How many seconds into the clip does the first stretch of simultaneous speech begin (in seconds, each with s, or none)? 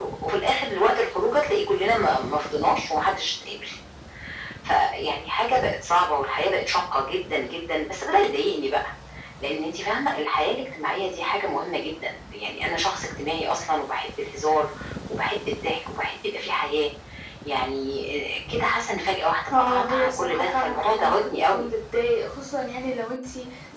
19.5 s